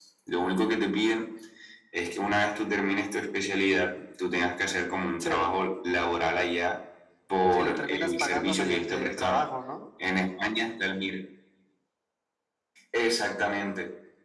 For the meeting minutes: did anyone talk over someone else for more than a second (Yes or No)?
Yes